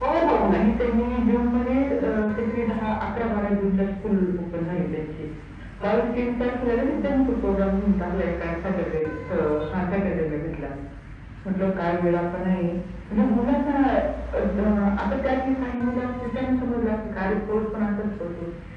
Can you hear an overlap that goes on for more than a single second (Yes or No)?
No